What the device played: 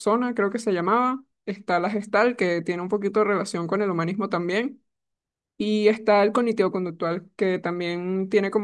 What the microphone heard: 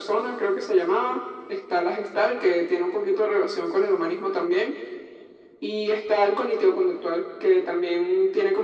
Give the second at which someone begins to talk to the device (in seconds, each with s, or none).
none